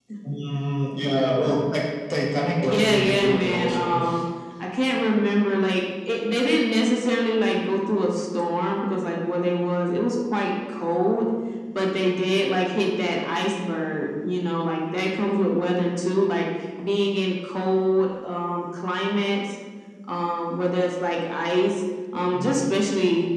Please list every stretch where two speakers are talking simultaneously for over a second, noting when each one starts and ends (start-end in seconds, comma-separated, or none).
2.6-4.0